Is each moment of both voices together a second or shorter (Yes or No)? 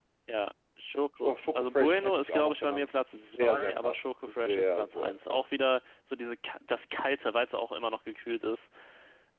No